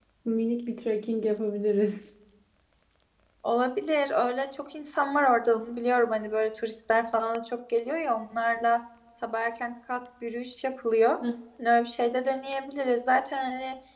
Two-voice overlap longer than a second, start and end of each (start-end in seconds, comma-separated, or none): none